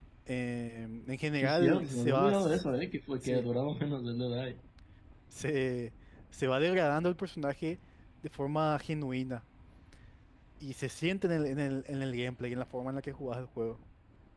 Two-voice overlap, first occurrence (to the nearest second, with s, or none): 1 s